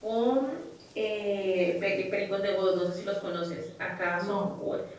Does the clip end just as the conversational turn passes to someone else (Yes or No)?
No